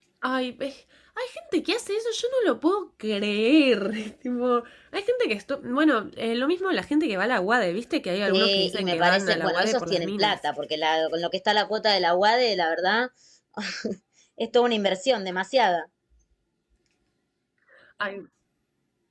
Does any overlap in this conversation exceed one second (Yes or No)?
Yes